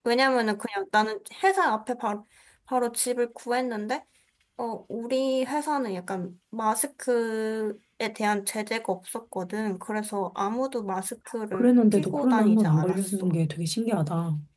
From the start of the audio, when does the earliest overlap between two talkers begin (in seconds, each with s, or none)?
11.5 s